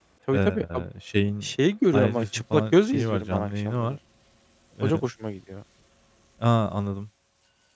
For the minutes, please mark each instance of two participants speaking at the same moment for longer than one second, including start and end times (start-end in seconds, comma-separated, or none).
1.9-4.0